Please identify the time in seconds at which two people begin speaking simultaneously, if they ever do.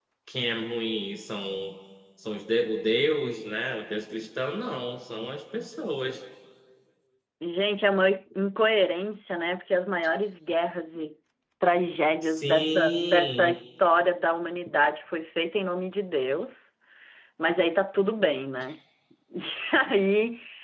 12.3 s

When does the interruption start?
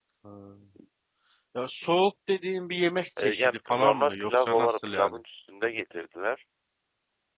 3.2 s

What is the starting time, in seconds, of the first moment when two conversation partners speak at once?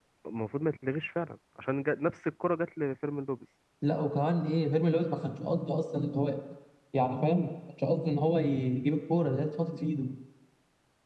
none

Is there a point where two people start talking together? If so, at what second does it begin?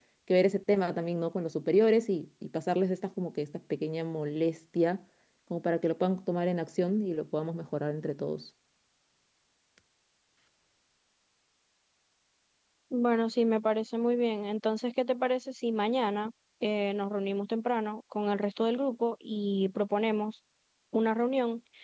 none

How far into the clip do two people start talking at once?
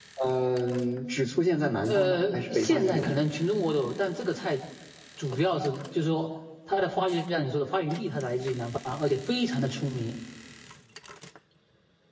1.8 s

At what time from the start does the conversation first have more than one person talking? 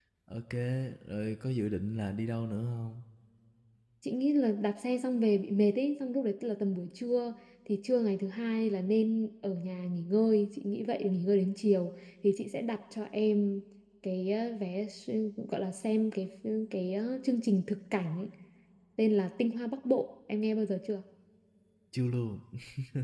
none

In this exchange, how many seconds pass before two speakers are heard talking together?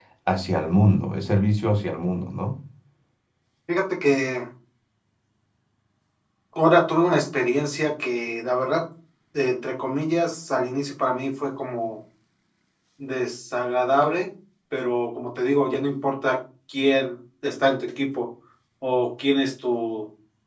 none

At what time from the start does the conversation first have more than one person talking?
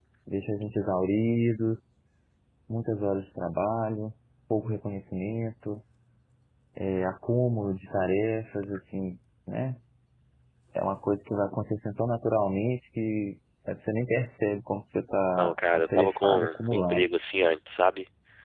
15.4 s

